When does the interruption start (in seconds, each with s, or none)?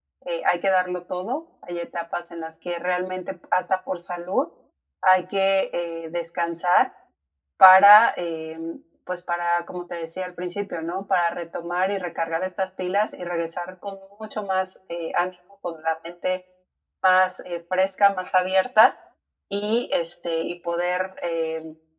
none